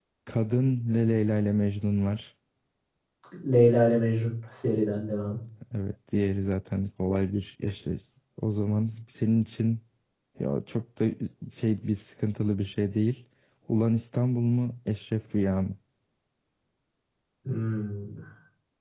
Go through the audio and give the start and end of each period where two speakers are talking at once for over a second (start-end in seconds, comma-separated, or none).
none